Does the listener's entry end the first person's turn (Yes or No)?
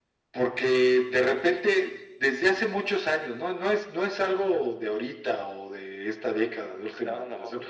No